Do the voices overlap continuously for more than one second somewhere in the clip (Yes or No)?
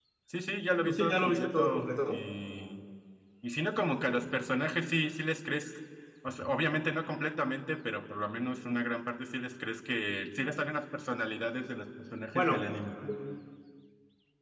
Yes